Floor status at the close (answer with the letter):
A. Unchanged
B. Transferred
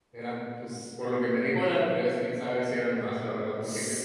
A